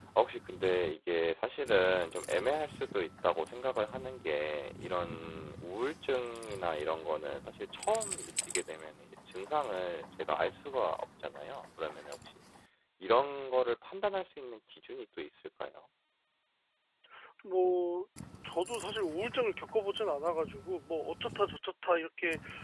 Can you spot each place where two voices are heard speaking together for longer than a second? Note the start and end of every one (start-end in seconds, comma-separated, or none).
none